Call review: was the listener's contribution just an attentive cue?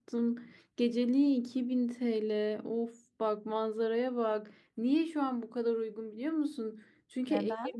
Yes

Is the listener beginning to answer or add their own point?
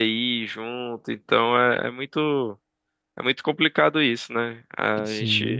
No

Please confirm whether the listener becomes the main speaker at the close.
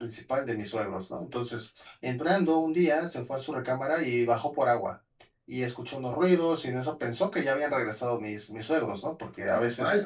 No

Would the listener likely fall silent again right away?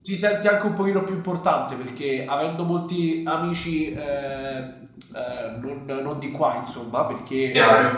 Yes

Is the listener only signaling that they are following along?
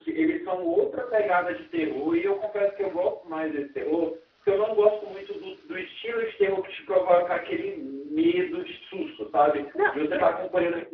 Yes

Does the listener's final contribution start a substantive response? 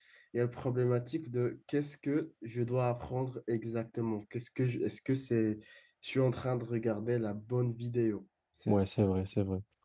Yes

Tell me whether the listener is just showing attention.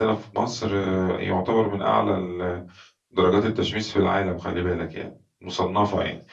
No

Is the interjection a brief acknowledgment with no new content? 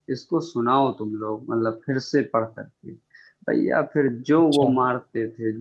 Yes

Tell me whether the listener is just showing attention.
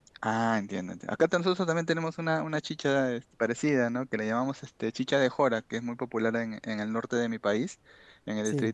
Yes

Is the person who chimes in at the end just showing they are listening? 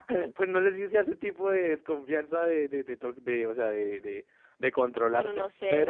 No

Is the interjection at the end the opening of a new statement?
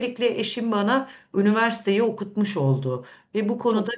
No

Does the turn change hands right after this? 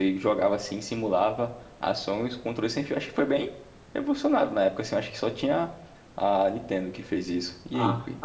Yes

